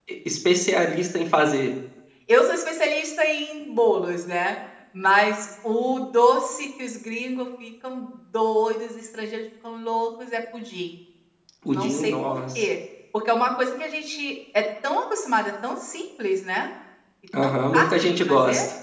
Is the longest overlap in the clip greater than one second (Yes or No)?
Yes